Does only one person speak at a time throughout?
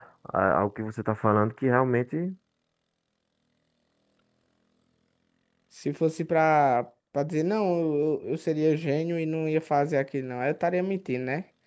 Yes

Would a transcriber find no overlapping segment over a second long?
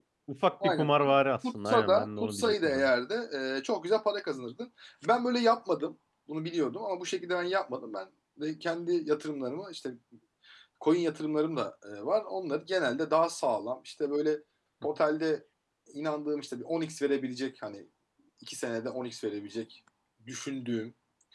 No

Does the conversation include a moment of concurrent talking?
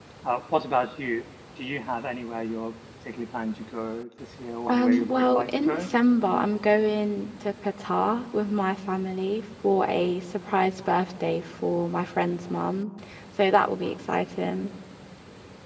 Yes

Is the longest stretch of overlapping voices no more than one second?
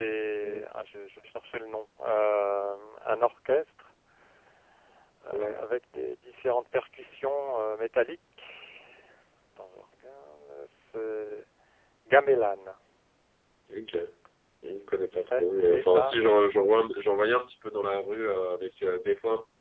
No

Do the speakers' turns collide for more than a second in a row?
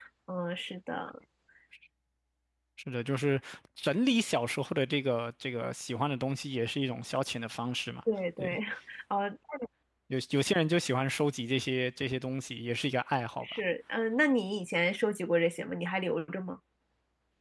No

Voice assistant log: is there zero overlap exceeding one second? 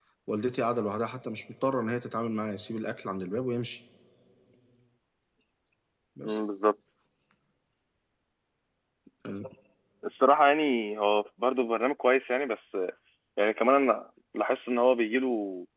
Yes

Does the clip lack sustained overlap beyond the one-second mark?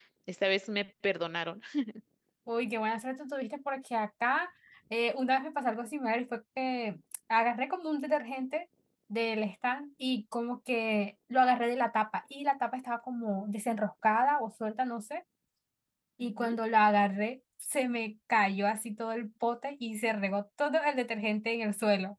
Yes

